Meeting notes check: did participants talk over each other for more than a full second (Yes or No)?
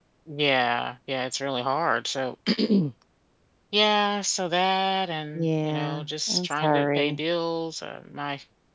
Yes